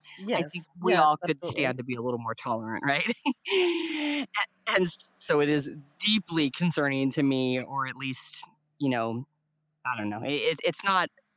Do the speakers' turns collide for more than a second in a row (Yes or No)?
Yes